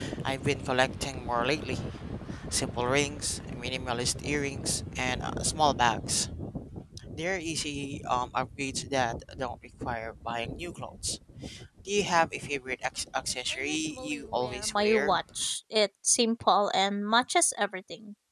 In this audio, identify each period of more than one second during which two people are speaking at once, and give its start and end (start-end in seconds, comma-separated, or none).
13.5-15.2